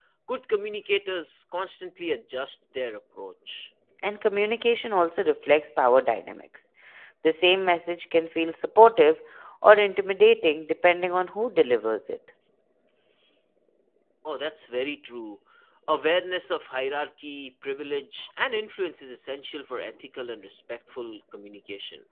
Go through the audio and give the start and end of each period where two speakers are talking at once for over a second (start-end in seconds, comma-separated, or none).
none